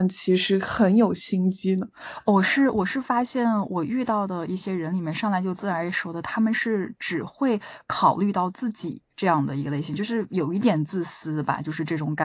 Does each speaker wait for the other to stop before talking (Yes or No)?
Yes